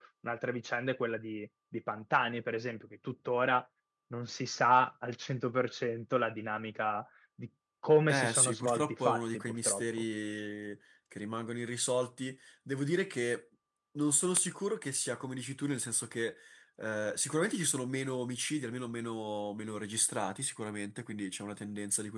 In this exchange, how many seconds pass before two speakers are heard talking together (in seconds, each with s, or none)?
8.1 s